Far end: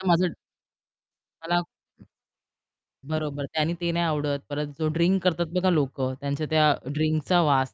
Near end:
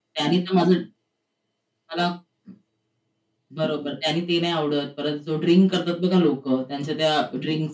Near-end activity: none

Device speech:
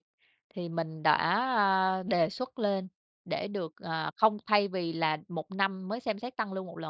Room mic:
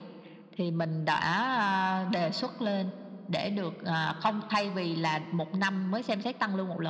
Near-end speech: none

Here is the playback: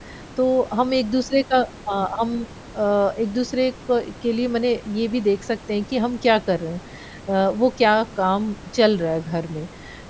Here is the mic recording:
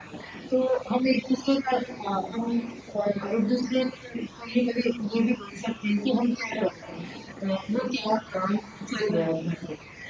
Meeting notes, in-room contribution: none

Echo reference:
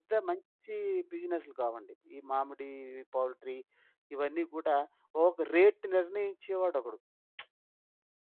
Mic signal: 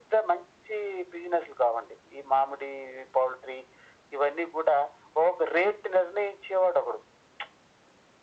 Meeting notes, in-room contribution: none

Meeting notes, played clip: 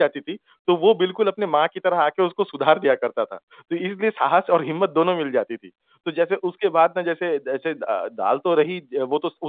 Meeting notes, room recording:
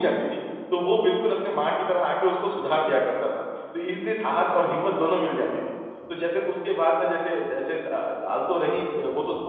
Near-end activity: none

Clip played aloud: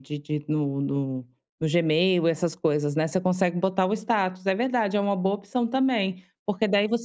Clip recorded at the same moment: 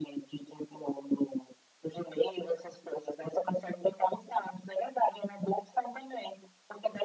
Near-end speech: none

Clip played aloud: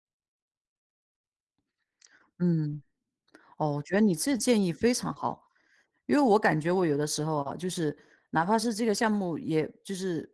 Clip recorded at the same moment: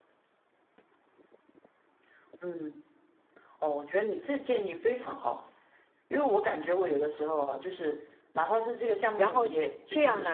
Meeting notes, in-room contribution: present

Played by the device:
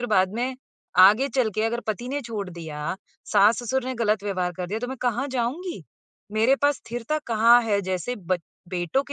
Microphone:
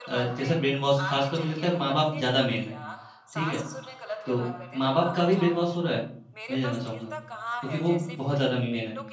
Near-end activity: present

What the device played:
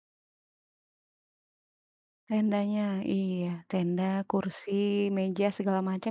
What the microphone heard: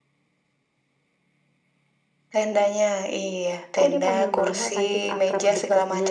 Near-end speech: present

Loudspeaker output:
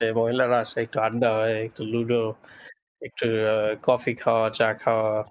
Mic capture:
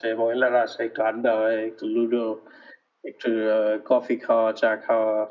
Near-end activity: none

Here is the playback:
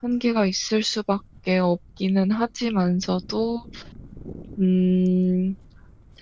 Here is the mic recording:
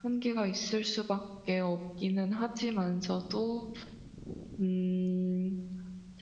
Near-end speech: none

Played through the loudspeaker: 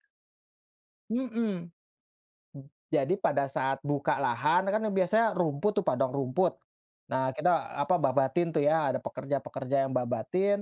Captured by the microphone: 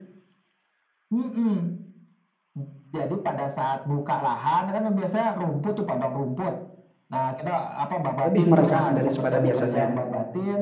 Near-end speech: present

